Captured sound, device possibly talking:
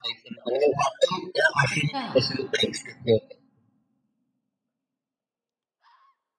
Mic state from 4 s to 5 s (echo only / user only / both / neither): neither